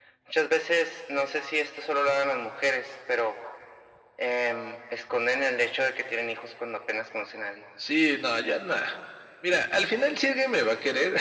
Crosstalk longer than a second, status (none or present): none